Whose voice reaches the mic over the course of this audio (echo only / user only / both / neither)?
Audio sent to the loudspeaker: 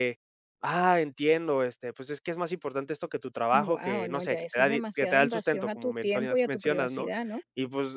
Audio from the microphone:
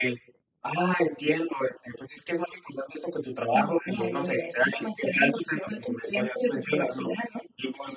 echo only